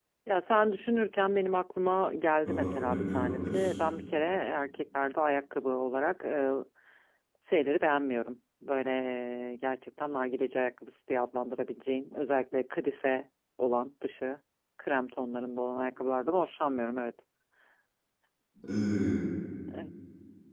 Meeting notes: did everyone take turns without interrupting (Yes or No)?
No